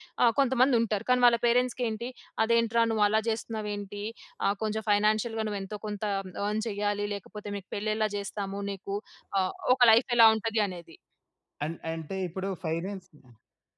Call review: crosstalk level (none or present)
none